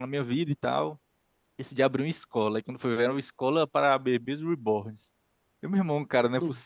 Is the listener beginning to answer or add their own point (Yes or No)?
No